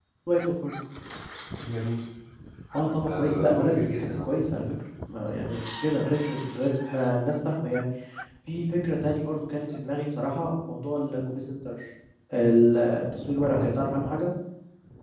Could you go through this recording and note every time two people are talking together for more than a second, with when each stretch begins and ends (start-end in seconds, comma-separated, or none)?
3.1-4.4